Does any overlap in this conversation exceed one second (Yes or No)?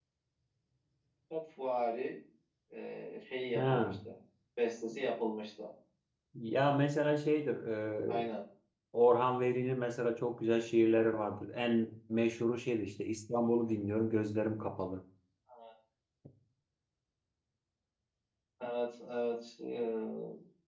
No